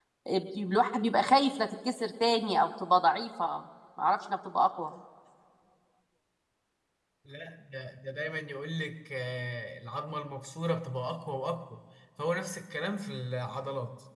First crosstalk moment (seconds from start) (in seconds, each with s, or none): none